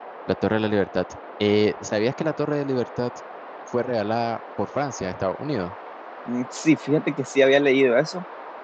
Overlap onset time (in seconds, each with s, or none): none